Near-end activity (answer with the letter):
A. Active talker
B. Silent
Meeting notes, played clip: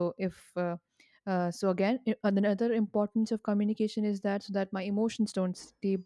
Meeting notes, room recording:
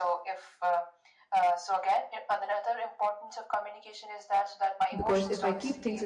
A